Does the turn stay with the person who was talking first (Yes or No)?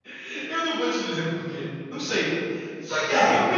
Yes